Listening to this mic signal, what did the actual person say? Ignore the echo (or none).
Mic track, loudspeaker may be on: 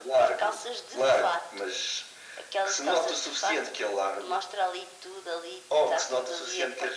none